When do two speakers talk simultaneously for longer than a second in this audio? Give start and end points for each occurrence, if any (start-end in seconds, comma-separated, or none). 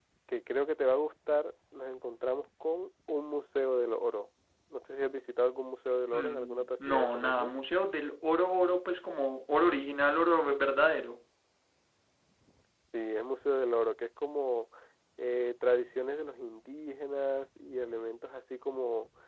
6.1-7.5